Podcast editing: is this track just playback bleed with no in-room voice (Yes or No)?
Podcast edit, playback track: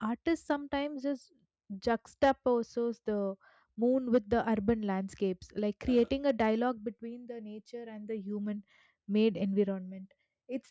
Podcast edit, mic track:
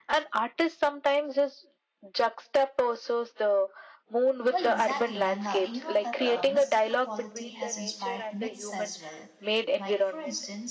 No